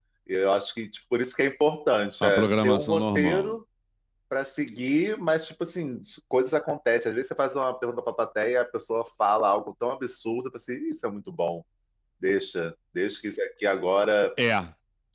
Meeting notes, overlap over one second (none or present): present